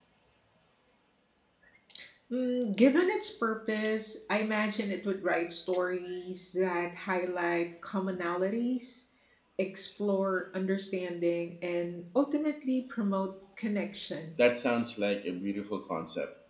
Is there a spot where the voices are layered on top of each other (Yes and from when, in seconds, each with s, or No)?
No